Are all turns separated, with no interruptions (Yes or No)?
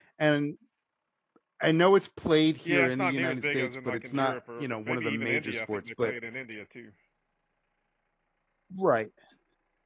No